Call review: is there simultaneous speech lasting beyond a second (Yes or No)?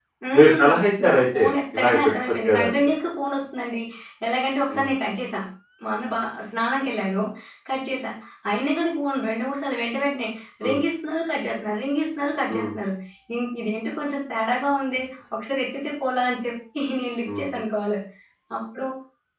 Yes